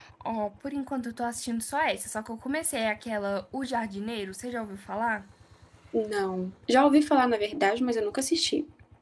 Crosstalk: none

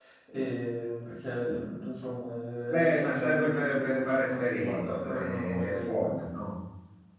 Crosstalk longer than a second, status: present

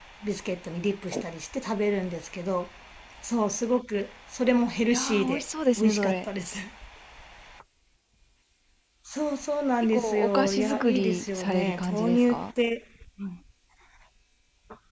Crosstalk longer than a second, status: present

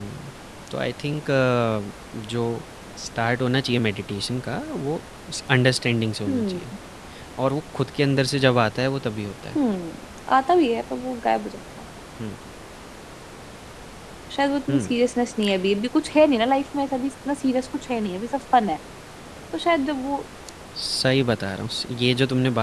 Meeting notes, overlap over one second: none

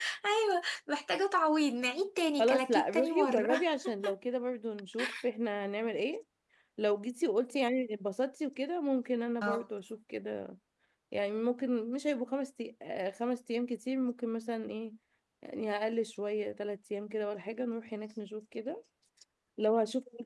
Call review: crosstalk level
present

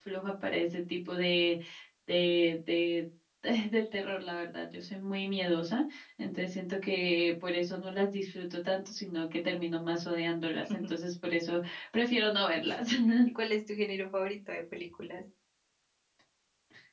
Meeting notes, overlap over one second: none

